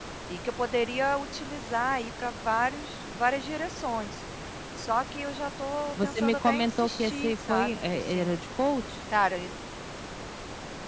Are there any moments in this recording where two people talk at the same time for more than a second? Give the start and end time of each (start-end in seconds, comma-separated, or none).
6.0-8.4